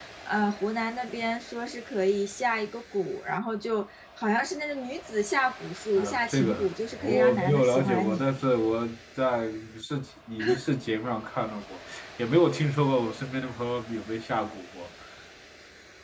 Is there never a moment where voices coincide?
No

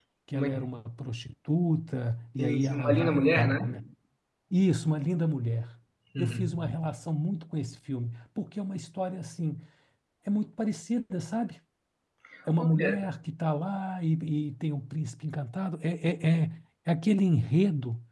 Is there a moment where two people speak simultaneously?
Yes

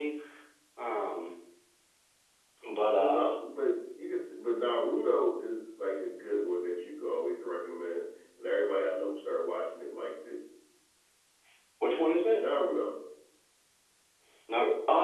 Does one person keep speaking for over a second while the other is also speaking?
No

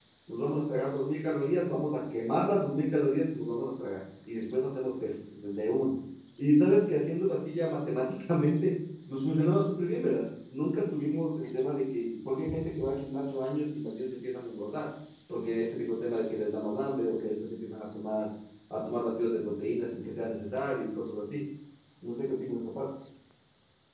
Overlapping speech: No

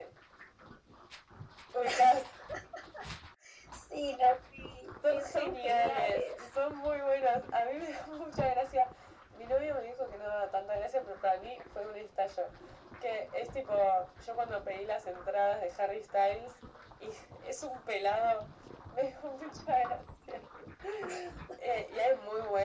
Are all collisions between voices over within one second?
No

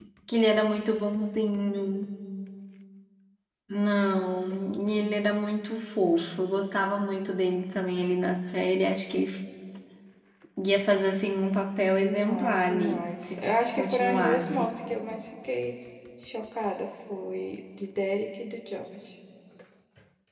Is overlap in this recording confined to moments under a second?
No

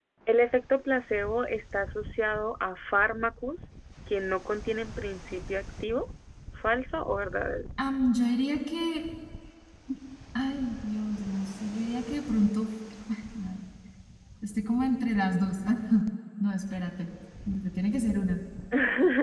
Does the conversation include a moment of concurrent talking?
No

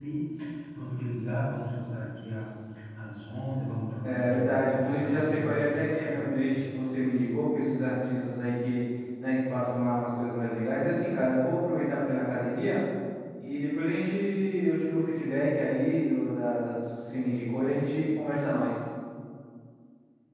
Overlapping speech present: Yes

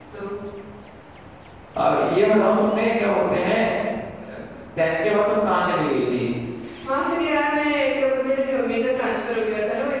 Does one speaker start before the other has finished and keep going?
No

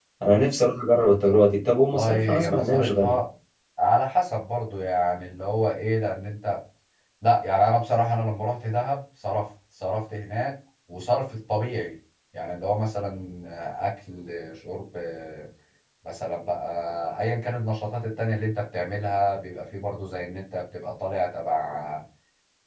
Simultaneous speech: Yes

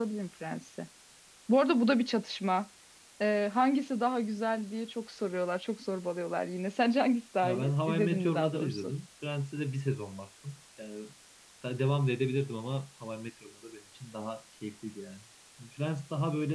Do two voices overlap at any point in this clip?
Yes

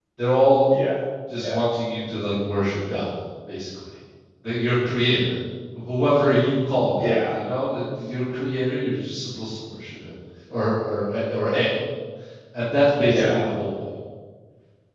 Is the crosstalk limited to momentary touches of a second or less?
Yes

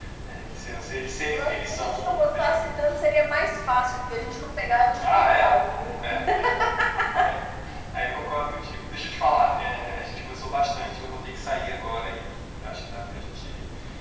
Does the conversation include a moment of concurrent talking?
Yes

